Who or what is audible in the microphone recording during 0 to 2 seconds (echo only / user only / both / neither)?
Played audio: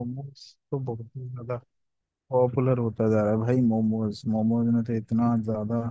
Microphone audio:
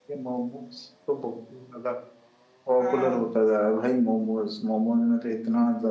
echo only